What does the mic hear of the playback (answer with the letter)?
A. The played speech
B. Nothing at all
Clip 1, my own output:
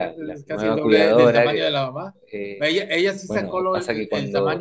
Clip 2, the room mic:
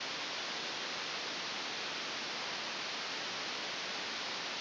B